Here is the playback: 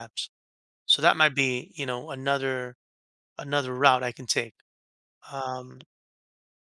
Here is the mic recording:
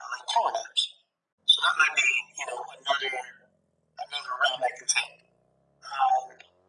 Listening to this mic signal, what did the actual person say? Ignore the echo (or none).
none